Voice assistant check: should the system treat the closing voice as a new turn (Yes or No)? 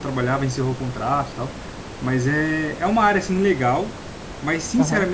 No